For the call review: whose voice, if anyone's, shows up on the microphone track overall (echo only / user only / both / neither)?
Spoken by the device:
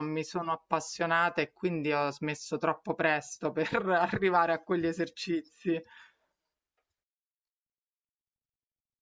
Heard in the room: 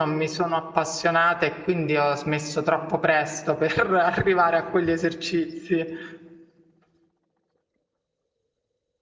echo only